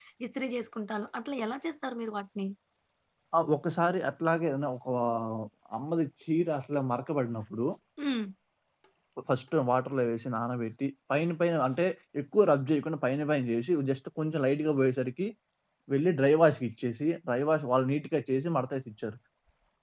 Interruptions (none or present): none